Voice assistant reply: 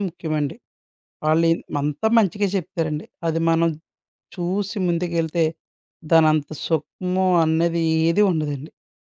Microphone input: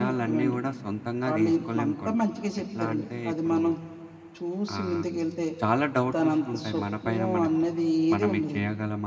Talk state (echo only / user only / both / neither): both